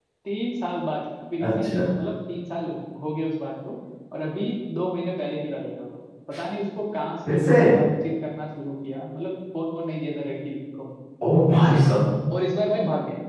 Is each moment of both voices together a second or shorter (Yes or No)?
Yes